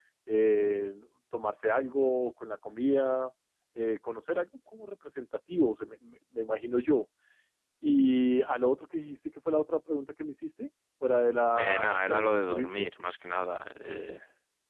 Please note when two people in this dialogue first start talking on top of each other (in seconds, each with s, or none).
11.6 s